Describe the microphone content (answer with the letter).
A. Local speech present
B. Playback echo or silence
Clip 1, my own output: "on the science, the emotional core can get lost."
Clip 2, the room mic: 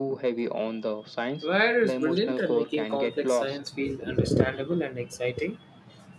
A